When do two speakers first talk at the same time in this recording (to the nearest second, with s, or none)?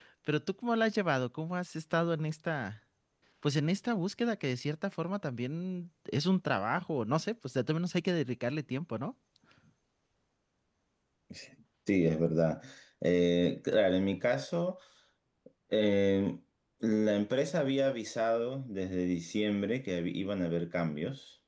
none